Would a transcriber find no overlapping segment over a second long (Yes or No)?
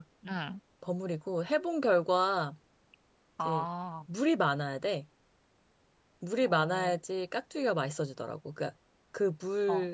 Yes